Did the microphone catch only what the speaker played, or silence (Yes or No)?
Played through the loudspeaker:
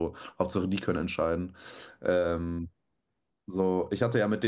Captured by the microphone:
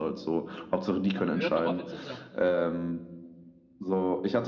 No